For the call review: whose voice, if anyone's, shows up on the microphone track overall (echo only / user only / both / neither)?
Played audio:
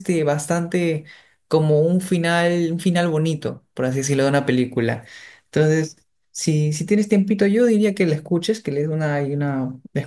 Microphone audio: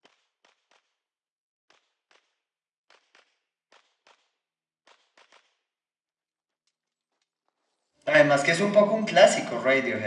user only